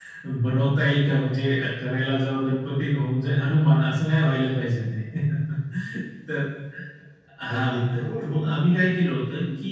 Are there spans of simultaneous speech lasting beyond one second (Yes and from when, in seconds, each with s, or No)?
Yes, from 7.5 s